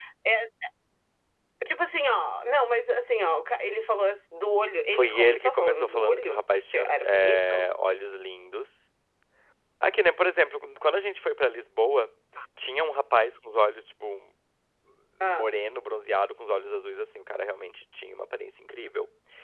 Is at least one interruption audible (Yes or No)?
Yes